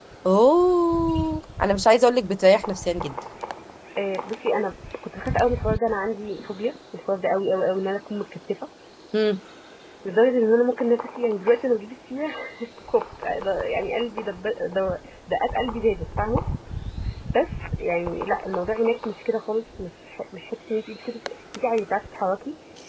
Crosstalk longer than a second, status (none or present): none